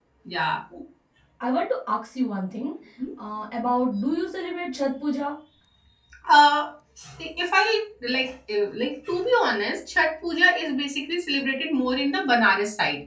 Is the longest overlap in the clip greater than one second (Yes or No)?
No